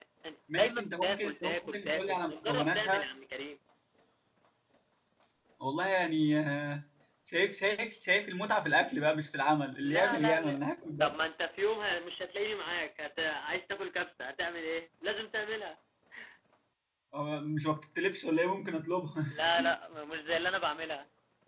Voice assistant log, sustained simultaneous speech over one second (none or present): present